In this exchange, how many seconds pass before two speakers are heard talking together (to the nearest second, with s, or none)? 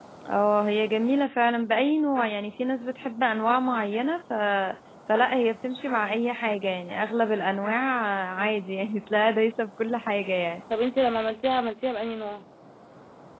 none